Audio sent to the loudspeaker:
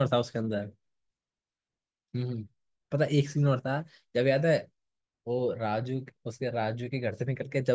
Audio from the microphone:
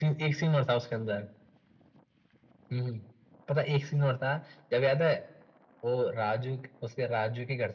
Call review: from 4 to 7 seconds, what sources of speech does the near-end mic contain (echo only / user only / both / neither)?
echo only